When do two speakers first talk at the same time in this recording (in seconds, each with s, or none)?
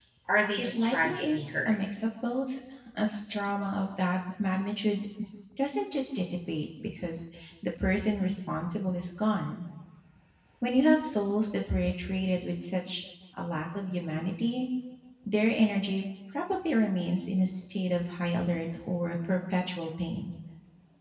0.6 s